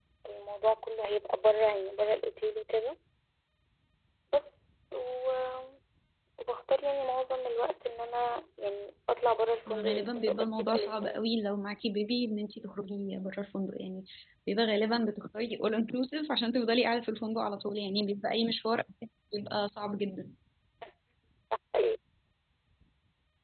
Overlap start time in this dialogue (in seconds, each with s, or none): 9.7 s